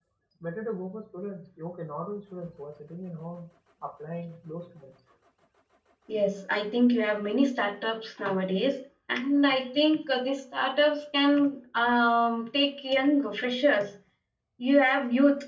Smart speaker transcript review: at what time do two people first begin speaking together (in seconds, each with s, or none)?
none